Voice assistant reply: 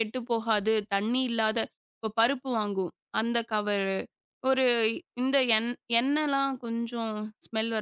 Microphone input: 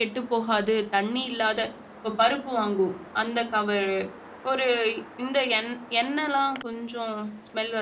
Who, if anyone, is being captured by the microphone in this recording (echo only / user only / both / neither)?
echo only